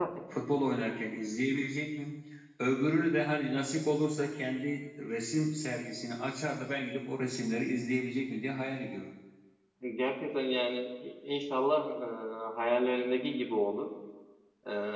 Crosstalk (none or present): none